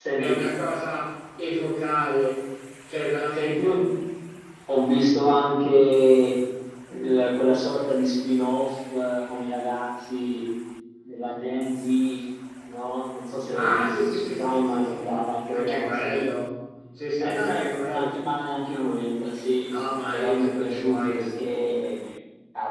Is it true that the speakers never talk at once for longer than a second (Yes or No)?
No